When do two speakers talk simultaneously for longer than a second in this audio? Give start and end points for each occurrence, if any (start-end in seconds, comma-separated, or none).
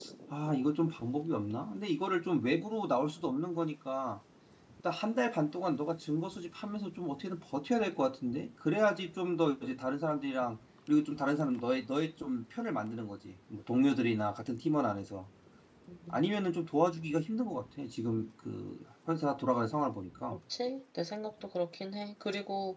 none